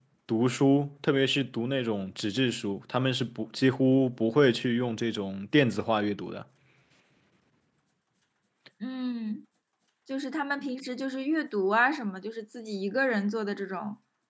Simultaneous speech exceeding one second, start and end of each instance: none

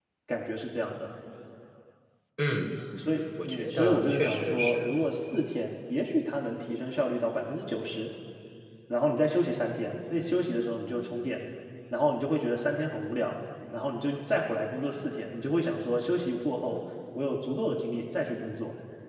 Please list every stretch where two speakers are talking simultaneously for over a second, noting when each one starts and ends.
3.5-4.9

